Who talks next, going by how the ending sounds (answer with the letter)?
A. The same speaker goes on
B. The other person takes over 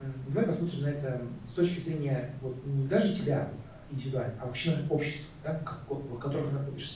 A